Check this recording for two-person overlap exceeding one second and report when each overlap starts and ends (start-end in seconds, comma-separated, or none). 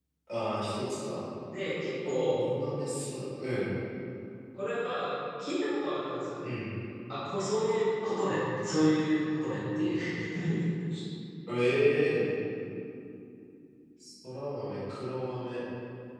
none